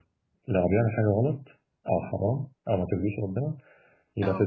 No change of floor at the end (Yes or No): Yes